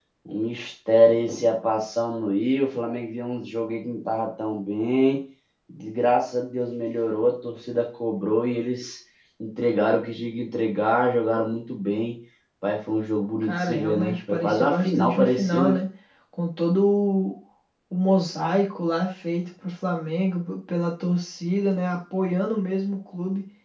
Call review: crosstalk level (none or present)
present